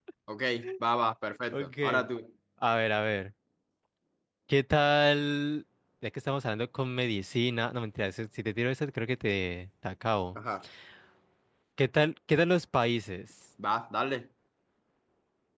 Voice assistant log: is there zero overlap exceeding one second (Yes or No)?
Yes